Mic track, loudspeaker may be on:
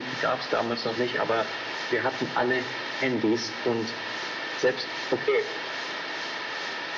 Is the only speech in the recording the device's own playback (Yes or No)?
Yes